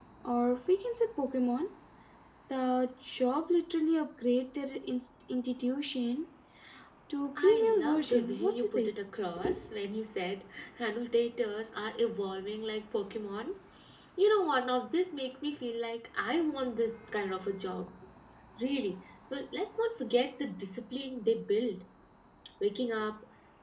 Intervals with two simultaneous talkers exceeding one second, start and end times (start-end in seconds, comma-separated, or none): 7.4-8.9